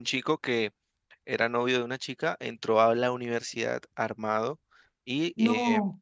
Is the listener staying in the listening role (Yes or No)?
Yes